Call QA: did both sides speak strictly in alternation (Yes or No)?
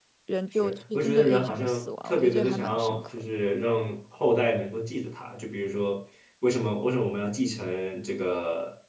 No